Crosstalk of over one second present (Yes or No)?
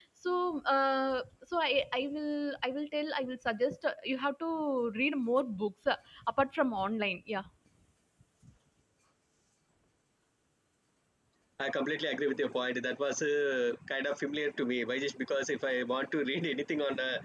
No